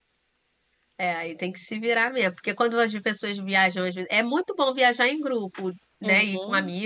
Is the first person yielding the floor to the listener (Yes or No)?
No